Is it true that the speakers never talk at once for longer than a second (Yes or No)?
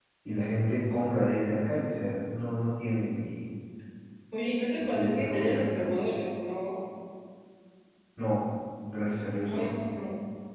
No